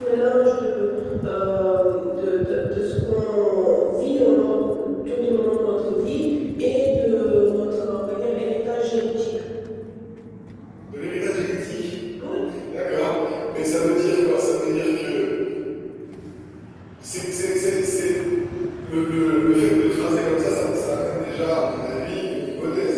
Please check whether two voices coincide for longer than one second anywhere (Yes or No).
No